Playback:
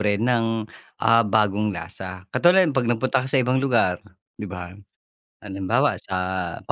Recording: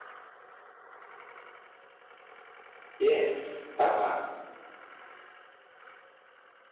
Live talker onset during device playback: 3 s

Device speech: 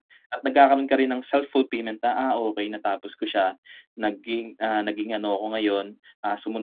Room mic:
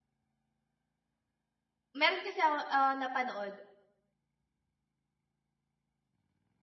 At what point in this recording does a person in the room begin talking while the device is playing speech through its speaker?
2 s

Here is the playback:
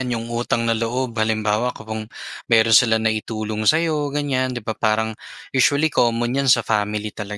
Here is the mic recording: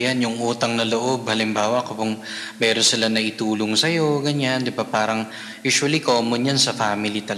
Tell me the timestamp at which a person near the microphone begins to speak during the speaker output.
none

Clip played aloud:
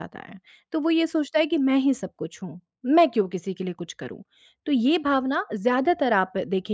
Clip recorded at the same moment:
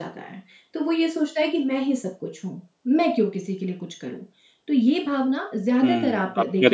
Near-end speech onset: 6 s

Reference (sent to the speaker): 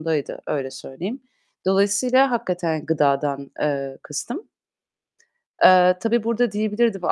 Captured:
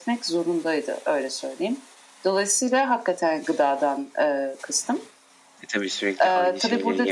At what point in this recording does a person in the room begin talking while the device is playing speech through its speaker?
6 s

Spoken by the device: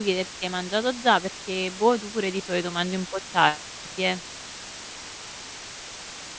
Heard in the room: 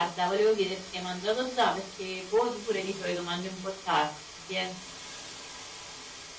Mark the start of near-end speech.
none

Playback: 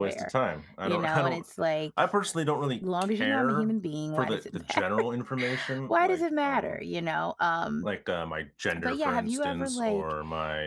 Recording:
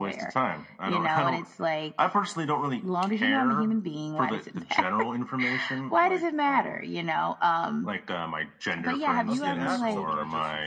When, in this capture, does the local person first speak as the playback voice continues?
9 s

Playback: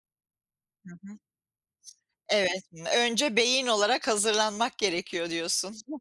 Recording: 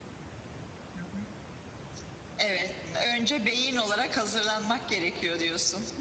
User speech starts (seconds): none

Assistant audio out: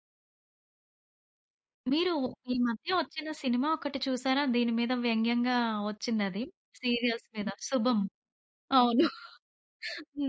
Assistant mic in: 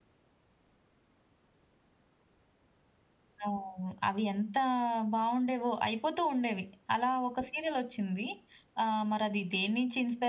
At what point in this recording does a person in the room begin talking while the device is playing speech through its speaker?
3 s

